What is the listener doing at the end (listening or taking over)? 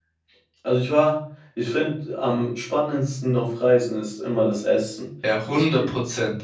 taking over